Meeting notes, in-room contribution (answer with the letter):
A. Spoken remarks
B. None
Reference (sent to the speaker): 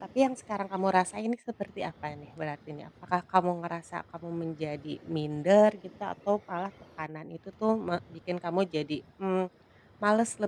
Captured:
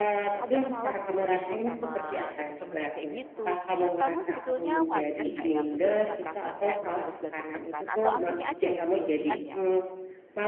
A